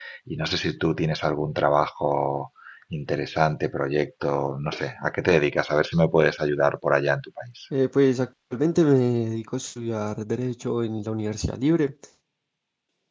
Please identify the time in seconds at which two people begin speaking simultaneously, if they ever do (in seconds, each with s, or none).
none